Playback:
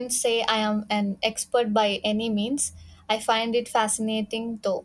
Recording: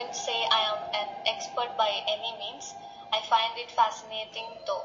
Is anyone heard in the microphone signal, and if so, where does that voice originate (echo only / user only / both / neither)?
echo only